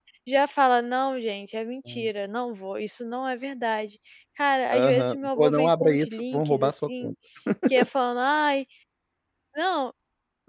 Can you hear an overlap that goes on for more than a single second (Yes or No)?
Yes